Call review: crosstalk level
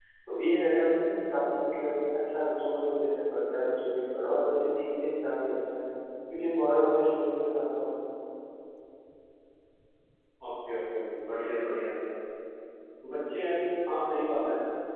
none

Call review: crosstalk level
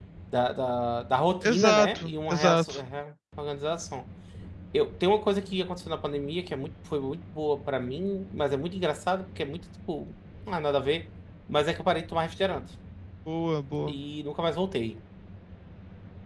present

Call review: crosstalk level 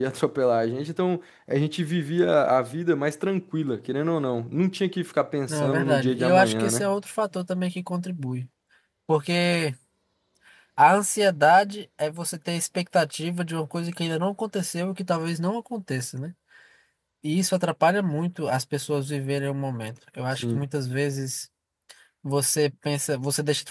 present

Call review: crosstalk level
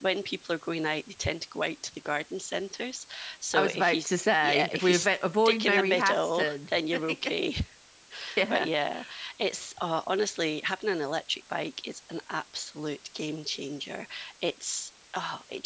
present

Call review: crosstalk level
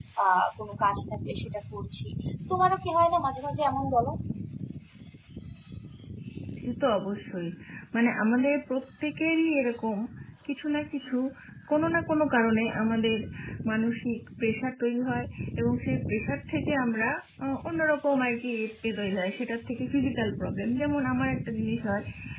none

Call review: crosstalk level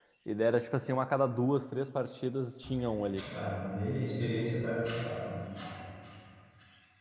none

